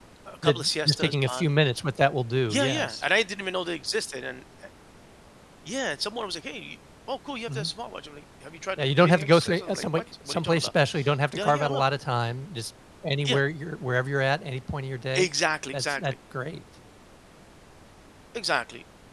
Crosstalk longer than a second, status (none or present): present